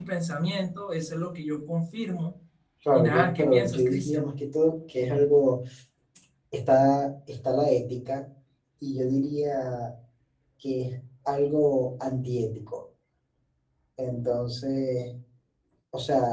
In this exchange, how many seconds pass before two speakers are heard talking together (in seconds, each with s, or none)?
2.9 s